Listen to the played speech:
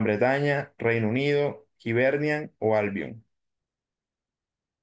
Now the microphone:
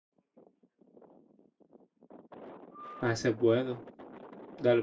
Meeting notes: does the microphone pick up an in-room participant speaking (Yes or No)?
Yes